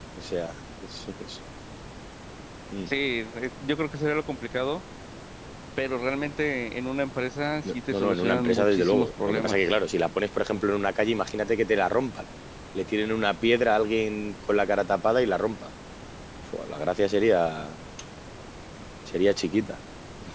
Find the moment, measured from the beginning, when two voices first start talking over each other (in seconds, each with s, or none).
7.6 s